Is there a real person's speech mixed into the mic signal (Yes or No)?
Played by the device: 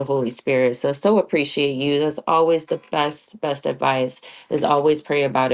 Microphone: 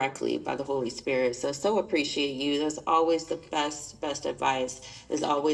No